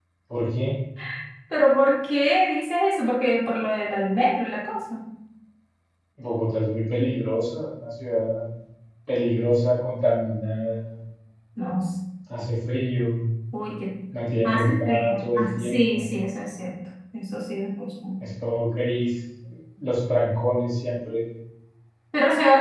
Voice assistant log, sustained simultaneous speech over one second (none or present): present